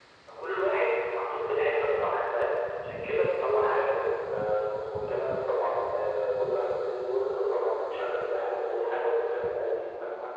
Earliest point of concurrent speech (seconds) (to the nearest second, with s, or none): none